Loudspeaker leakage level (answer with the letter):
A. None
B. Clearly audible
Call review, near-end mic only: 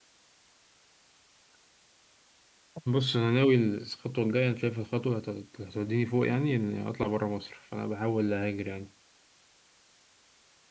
A